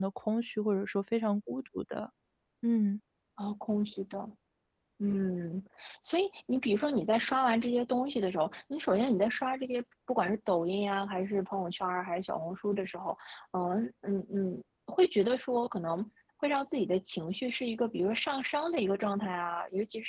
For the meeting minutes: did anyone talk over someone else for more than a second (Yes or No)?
No